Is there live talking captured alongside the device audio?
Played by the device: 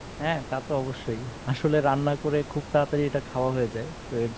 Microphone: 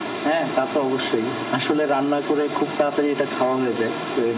No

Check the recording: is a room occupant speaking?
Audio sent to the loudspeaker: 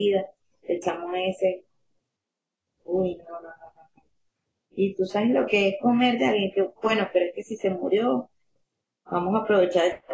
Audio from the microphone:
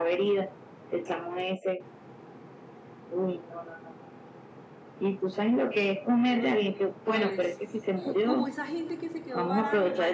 Yes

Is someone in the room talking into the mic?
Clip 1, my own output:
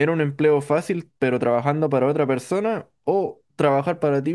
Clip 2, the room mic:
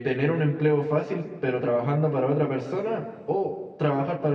No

